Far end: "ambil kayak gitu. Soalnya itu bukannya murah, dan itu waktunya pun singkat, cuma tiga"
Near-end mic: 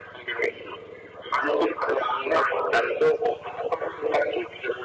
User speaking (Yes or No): No